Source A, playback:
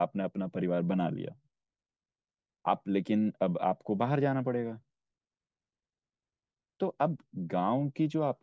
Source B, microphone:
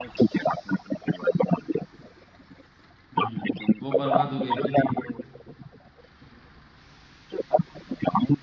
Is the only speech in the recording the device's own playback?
No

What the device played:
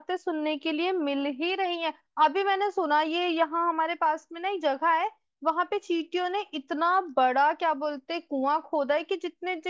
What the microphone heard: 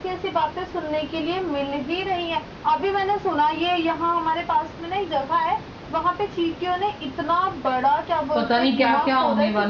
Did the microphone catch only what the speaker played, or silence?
No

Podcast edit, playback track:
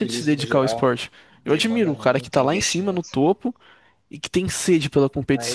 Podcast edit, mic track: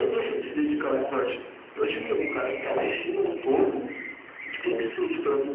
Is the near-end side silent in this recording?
No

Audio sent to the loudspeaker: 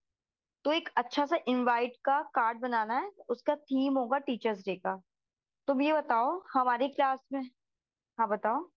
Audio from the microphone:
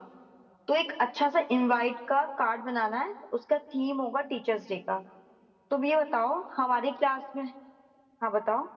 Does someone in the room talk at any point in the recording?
No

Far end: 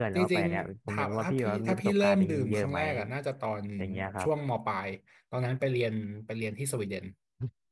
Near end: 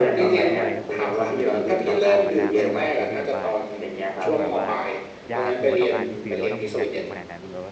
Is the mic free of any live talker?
No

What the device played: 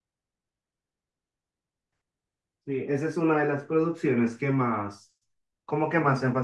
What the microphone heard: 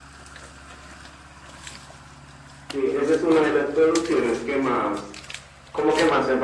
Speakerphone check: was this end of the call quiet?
Yes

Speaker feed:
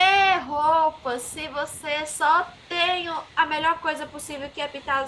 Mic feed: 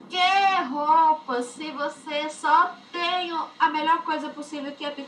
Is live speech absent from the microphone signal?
Yes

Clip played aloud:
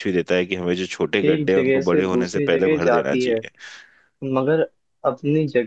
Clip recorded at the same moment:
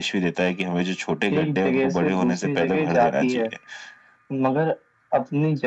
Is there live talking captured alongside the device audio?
No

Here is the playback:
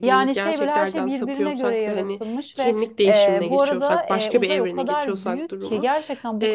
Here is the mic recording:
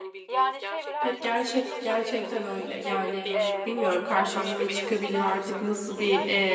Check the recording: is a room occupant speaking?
Yes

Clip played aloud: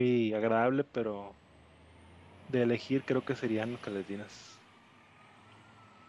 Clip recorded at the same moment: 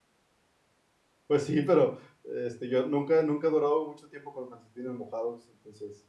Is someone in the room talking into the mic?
Yes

